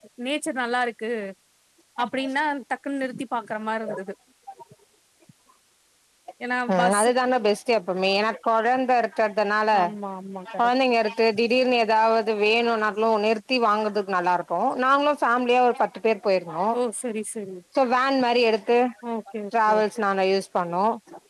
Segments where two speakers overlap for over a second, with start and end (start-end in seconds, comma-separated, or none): none